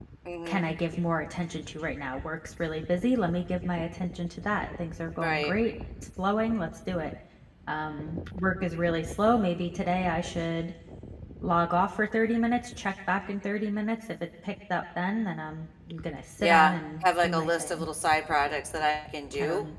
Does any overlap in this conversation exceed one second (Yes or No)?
Yes